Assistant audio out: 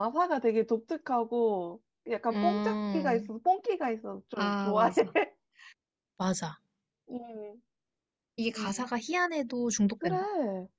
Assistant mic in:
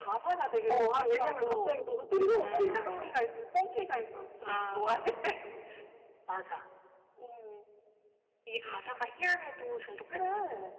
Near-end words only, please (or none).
어, 아, 왜냐면 갑자기 너무 뜬금없으니까.